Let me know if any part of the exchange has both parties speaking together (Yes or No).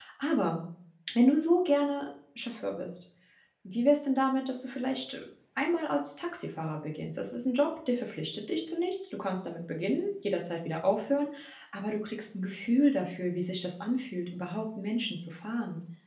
No